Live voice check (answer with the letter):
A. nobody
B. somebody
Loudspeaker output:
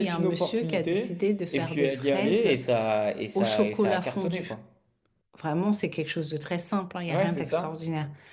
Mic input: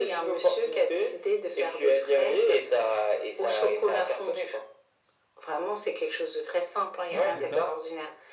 B